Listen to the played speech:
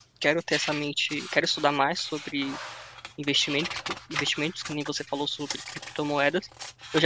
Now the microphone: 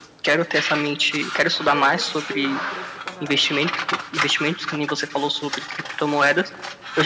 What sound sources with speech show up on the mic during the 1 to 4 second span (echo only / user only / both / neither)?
both